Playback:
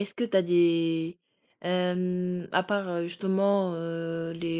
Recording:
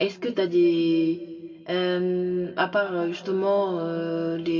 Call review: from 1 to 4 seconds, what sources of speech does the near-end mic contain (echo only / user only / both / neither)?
echo only